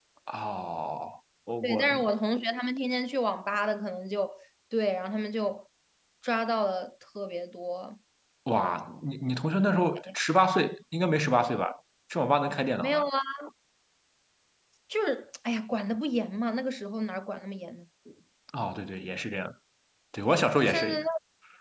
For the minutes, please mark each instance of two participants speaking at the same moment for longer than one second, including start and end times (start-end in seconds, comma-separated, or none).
none